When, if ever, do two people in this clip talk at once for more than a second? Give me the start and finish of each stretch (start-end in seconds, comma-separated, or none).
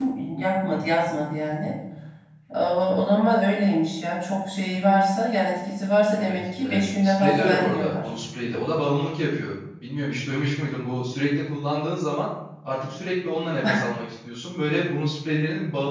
6.1-8.1